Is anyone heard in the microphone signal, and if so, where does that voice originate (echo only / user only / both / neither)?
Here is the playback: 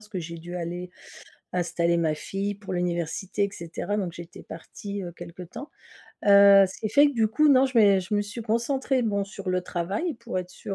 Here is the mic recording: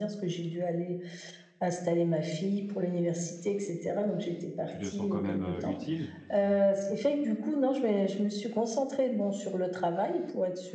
both